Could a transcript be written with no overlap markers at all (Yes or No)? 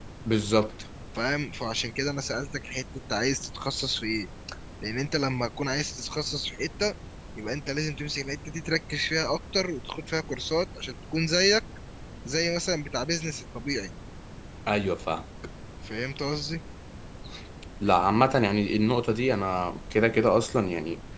Yes